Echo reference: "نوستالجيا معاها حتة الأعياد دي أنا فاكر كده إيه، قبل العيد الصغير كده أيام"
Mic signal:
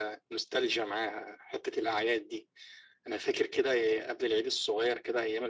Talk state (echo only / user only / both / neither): echo only